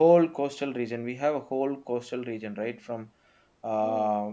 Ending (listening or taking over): listening